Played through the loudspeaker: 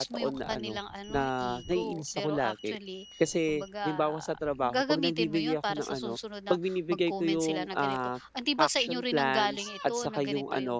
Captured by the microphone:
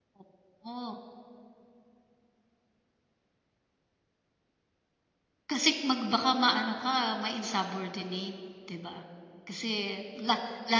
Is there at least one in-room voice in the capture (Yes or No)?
Yes